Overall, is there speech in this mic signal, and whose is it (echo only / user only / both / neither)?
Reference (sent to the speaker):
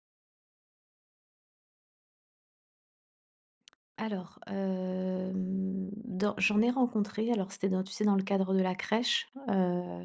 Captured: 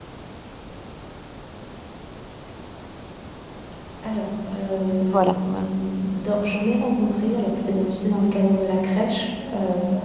both